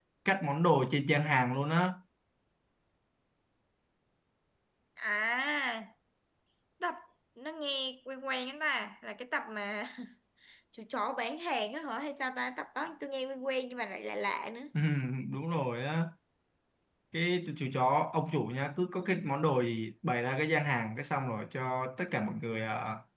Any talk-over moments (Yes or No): No